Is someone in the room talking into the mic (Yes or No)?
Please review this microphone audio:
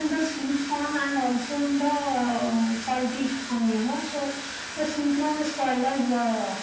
No